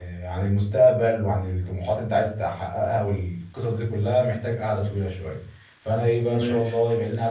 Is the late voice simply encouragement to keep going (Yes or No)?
Yes